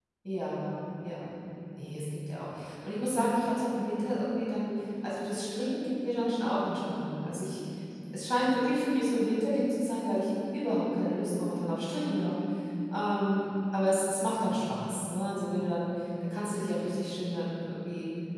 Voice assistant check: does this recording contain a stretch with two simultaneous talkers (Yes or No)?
No